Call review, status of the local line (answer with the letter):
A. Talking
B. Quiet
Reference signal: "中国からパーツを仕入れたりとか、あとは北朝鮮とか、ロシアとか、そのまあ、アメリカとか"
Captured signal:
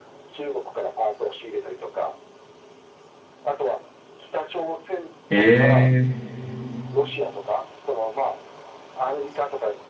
A